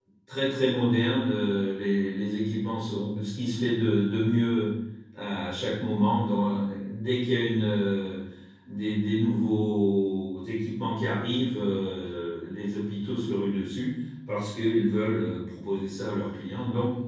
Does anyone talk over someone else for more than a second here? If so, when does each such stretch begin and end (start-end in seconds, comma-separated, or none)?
none